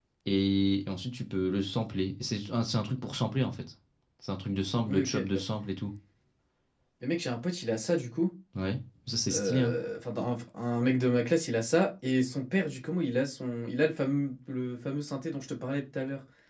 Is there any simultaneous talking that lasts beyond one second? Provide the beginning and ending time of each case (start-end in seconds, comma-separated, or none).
none